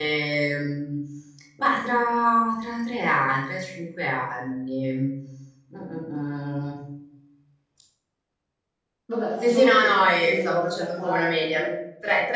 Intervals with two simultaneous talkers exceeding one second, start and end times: 9.4-11.6

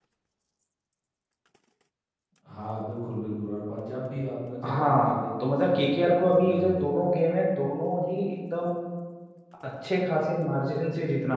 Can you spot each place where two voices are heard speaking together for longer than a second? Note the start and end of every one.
4.7-6.8

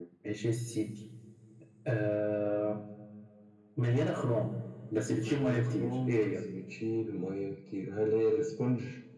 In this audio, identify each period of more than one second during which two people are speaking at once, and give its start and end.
5.2-6.4

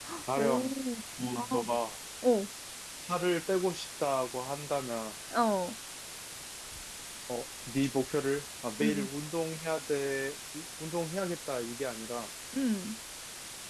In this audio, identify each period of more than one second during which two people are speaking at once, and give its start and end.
none

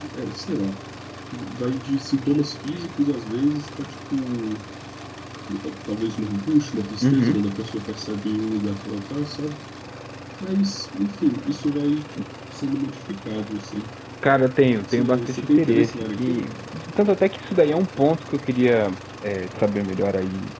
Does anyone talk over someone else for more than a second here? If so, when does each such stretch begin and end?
14.9-16.5

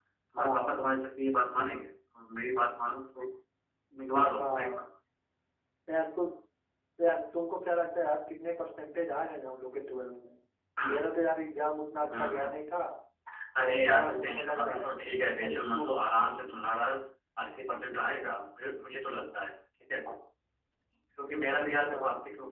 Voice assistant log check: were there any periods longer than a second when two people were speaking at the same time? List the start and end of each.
13.6-14.9

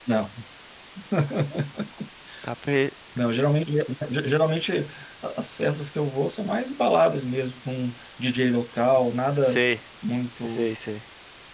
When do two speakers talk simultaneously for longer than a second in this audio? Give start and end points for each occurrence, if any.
none

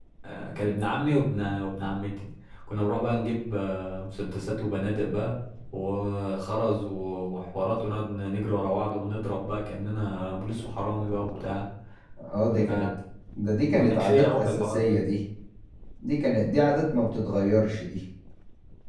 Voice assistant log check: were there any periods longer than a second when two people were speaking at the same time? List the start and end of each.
13.8-15.0

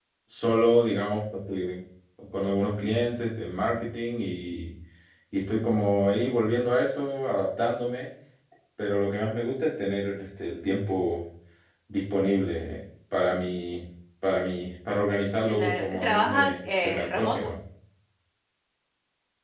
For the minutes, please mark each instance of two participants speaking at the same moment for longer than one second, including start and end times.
15.5-17.5

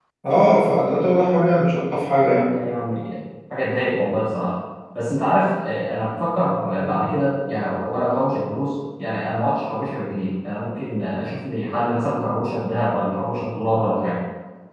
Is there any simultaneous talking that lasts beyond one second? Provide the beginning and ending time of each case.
none

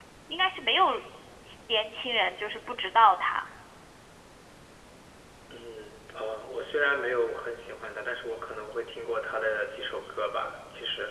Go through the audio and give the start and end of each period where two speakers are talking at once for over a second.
none

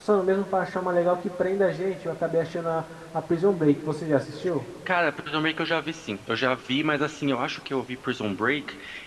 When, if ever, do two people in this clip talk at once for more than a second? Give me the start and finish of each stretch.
none

